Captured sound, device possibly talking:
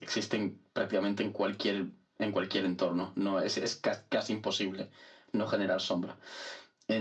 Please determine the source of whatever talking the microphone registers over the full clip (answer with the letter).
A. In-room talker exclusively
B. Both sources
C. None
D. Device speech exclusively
D